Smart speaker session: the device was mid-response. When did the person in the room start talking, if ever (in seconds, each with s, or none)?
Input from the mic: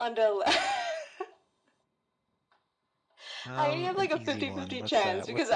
3.4 s